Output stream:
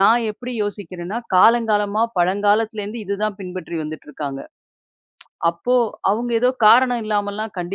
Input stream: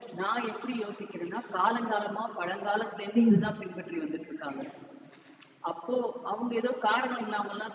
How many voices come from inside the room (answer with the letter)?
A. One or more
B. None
A